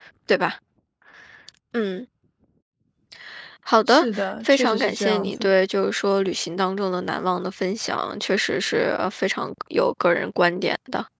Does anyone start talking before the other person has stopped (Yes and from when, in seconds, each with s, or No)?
Yes, from 3.9 s